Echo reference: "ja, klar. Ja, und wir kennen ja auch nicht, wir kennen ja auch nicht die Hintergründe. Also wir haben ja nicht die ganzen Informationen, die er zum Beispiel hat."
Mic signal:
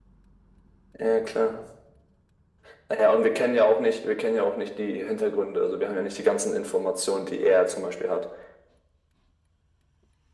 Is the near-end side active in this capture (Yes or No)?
No